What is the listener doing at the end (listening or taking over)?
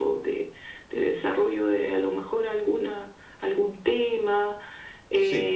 listening